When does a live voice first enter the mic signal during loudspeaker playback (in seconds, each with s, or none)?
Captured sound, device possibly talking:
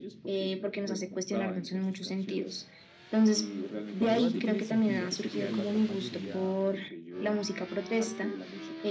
4.0 s